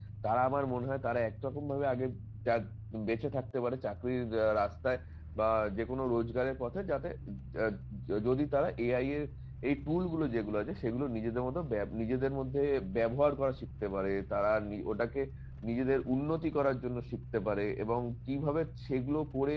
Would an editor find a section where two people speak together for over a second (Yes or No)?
No